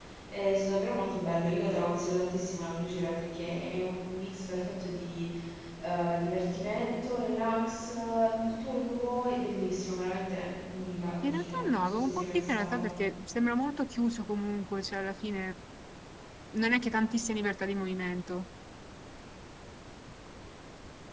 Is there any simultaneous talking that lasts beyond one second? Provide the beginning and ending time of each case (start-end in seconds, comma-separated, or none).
11.2-12.9